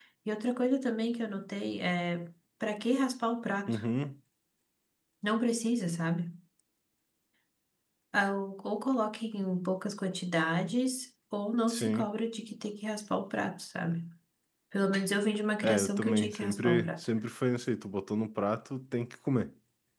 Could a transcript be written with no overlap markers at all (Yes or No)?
No